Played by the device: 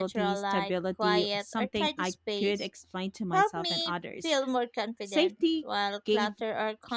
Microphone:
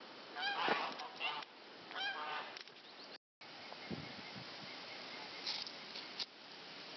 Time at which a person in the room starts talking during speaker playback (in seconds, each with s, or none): none